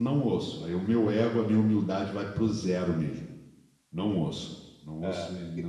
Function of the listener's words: taking over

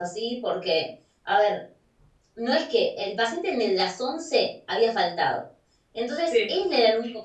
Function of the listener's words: listening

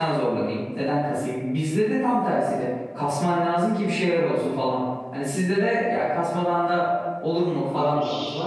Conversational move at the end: taking over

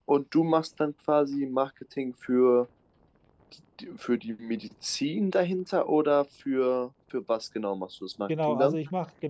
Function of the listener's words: taking over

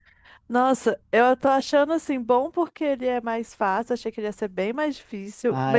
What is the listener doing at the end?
taking over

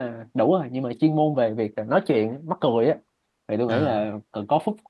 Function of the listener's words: listening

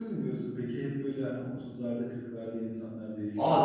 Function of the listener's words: taking over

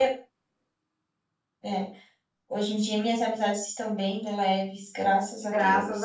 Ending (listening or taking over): taking over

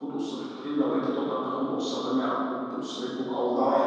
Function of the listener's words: taking over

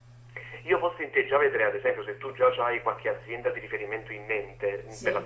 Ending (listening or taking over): listening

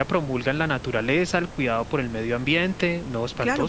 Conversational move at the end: taking over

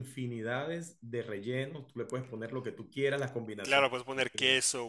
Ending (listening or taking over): taking over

